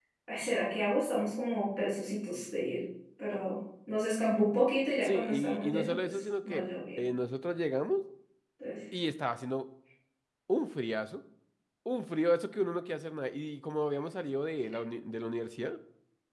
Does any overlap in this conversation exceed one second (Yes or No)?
Yes